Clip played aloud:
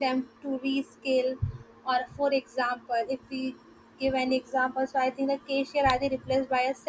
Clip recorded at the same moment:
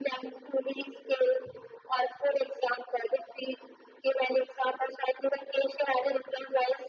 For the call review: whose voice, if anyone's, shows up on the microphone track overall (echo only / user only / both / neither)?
echo only